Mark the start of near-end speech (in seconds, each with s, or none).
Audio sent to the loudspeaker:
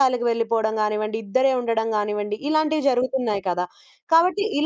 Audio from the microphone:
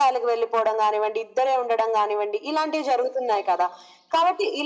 none